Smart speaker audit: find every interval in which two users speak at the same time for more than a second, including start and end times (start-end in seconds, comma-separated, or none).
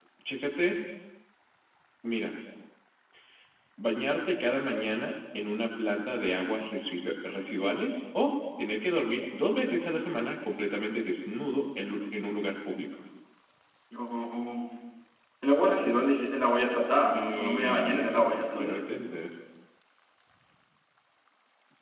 17.1-18.8